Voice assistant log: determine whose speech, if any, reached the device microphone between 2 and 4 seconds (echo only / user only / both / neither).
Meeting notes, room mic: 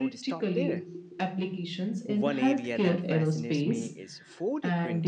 both